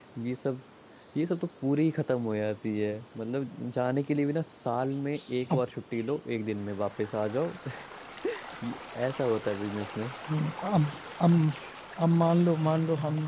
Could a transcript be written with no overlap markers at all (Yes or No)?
Yes